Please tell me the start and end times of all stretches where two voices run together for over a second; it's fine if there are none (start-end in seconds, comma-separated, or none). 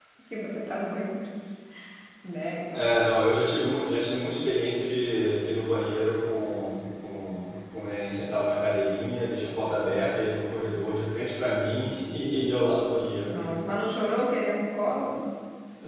none